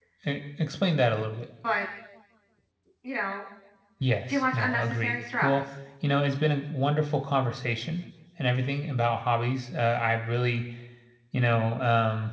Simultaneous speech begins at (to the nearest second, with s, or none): 4 s